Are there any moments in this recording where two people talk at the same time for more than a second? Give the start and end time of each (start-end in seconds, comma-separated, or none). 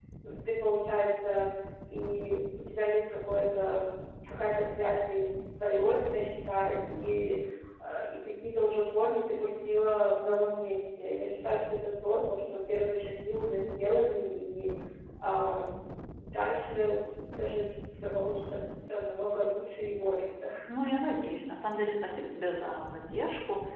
none